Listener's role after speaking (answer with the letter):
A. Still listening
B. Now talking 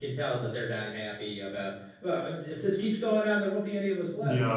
B